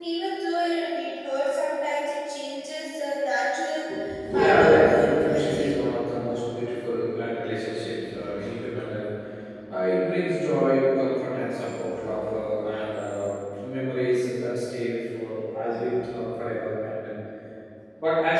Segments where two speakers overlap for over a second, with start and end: 4.3-5.8

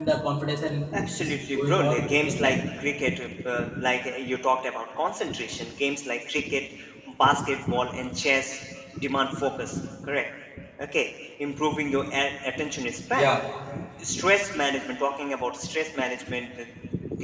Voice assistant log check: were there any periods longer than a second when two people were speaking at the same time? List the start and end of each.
1.2-2.6

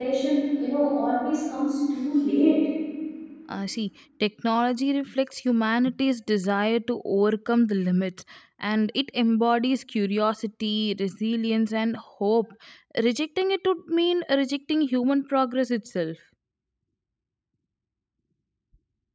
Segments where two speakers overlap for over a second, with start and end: none

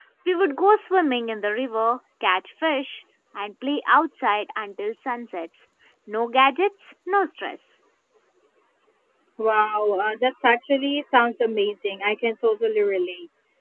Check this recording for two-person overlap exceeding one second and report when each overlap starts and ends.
none

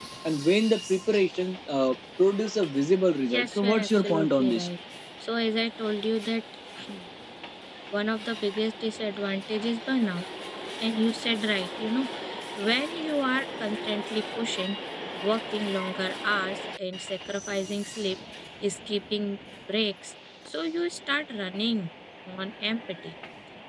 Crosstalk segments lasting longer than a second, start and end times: 3.3-4.7

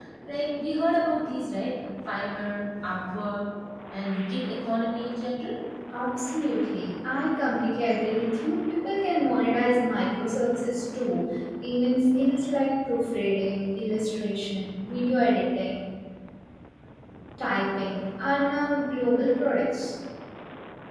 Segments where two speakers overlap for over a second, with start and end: none

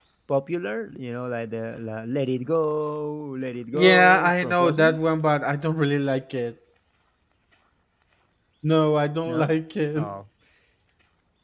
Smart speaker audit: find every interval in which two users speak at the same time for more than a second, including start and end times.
3.7-5.0

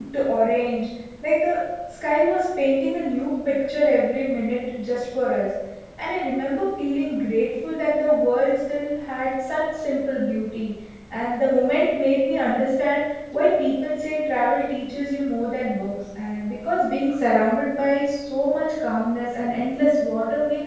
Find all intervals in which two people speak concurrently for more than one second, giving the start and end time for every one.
none

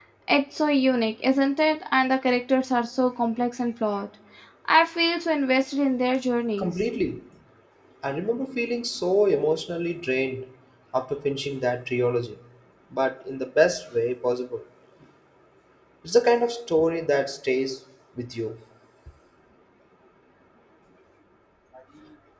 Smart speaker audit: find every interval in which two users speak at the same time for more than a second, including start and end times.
none

